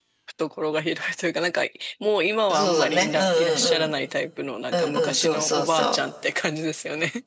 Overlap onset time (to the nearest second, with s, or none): 2 s